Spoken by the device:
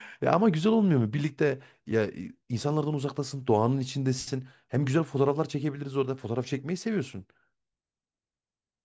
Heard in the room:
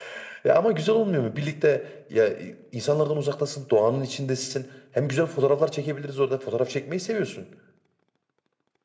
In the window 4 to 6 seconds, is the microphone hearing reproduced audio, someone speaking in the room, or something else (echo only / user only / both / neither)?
echo only